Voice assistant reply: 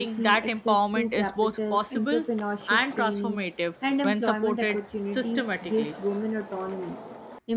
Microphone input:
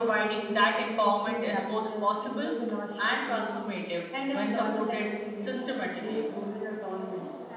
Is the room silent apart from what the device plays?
No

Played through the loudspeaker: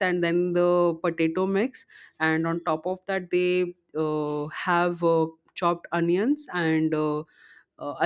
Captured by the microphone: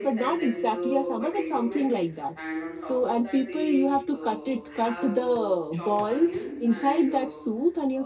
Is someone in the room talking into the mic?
Yes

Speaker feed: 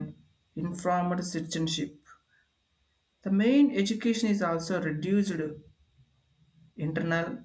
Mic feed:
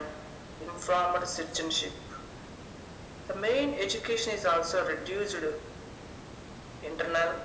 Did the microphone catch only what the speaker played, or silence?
Yes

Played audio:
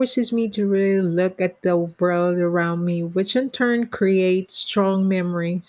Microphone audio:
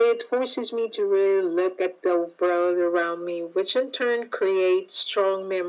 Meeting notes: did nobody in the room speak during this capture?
Yes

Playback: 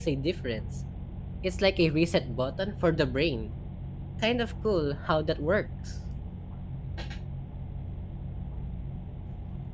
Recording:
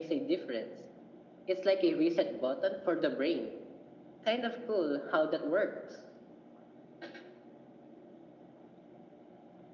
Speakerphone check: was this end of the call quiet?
Yes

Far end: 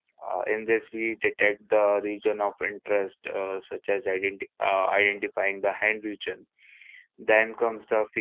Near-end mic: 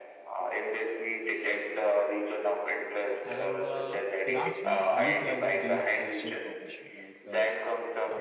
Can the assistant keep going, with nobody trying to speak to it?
No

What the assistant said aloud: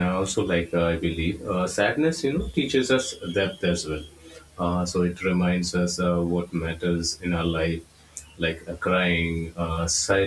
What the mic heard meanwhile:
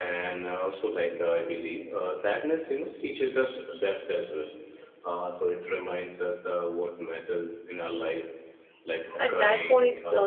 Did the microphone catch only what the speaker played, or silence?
No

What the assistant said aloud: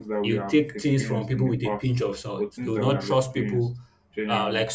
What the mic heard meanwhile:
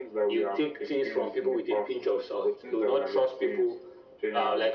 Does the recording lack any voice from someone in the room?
Yes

